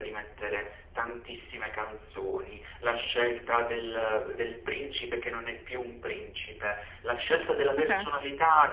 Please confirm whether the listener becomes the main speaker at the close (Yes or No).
No